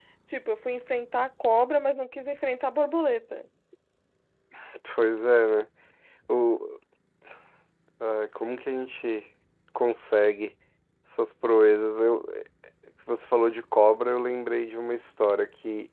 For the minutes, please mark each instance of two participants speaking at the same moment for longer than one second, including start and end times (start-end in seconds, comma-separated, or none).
none